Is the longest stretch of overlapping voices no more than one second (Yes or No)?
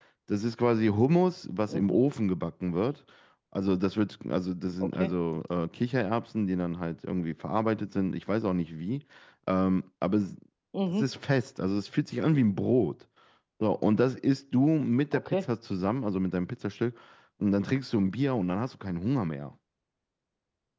Yes